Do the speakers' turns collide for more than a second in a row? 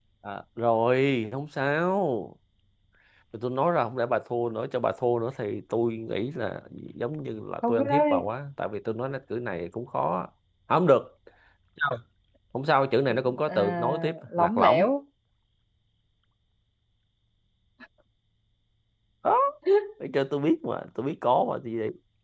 Yes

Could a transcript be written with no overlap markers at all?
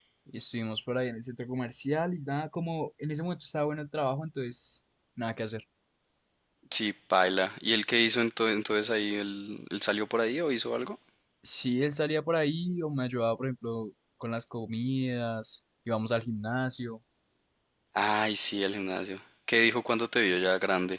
Yes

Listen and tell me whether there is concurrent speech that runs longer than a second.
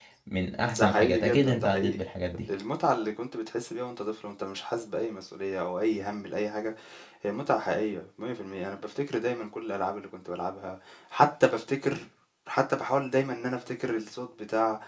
Yes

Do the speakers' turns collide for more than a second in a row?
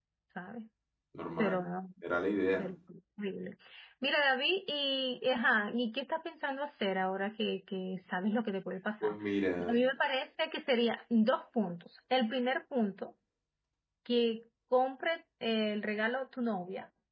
No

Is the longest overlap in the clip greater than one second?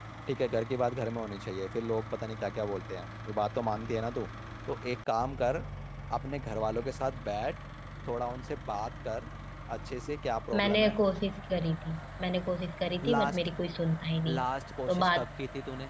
No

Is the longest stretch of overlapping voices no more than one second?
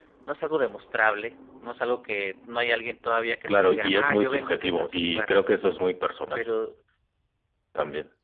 No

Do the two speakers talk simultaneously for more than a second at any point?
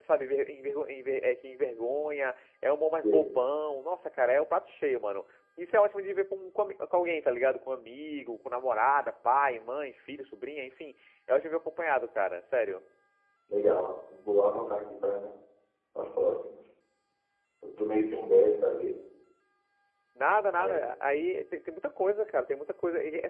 No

